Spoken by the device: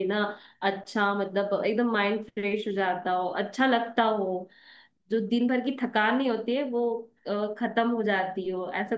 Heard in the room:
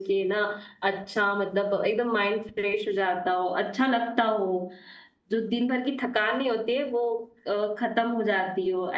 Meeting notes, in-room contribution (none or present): none